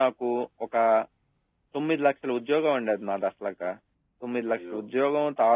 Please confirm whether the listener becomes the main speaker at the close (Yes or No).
No